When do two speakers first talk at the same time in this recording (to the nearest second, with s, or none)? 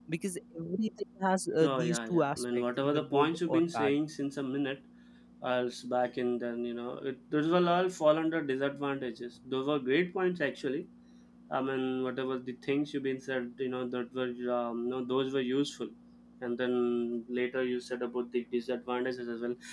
2 s